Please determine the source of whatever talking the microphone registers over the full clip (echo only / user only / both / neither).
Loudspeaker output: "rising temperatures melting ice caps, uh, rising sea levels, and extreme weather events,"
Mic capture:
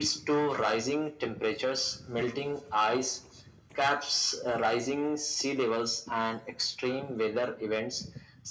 echo only